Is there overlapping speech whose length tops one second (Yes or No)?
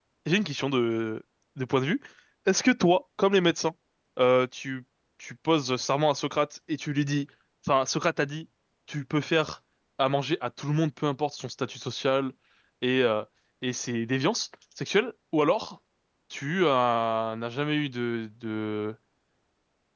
No